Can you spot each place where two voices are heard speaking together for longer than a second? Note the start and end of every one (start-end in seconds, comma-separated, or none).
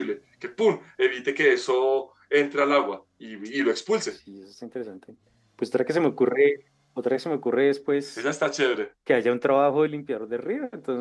none